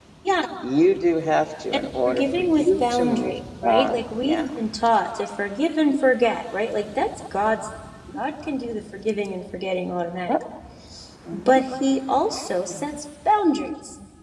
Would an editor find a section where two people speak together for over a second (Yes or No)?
Yes